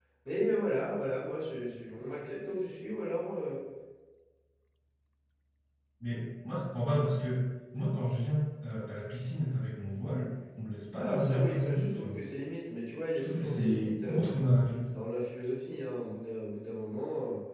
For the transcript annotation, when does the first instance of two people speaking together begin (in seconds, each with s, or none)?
11.0 s